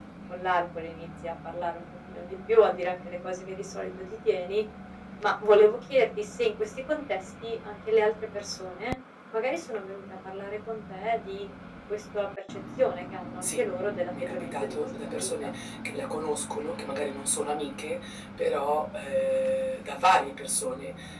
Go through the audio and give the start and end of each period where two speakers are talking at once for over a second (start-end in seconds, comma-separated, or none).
14.2-15.5